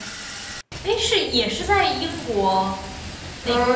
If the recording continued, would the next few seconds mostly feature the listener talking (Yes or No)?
Yes